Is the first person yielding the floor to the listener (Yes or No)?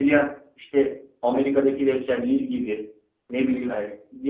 No